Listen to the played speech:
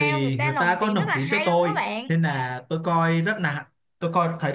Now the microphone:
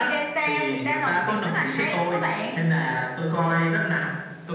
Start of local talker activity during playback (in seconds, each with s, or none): none